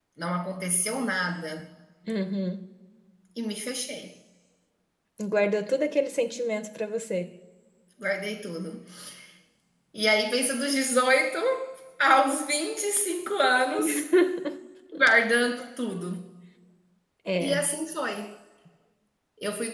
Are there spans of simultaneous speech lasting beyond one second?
No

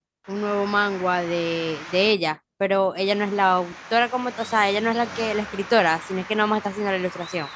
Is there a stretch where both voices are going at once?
No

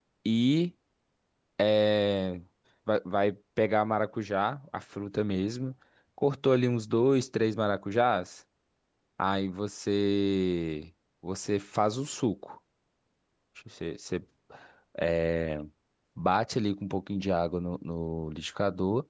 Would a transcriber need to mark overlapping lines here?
No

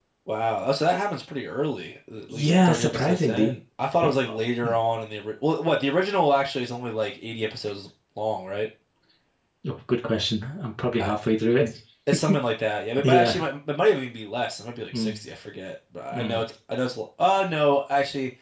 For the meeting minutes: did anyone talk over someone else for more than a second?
Yes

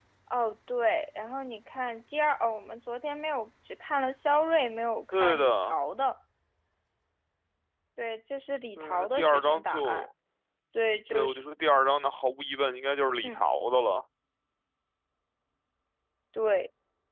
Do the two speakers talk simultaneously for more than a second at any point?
Yes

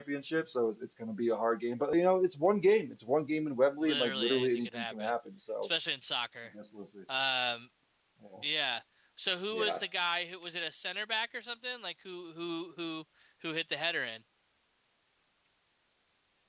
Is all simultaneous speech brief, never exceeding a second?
No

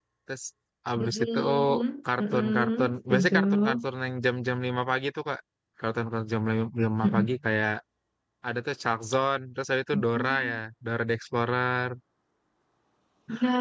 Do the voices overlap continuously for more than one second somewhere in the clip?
Yes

